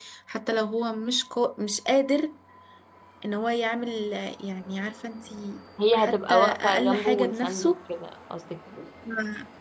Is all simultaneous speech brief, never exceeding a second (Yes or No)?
No